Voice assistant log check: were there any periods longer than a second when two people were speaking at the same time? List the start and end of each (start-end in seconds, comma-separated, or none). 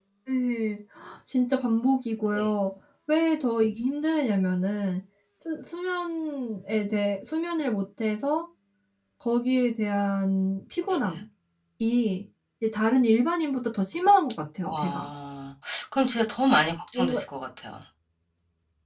none